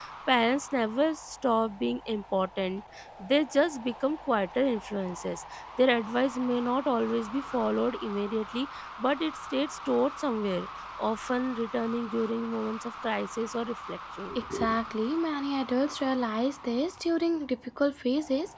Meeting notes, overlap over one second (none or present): none